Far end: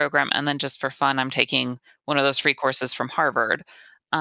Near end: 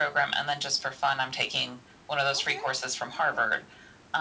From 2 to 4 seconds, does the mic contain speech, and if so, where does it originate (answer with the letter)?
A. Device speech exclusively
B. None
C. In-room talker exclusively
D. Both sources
D